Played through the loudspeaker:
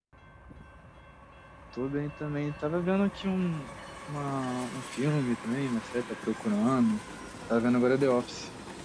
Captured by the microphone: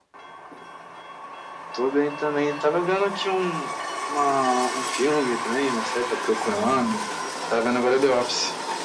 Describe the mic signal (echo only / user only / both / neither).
both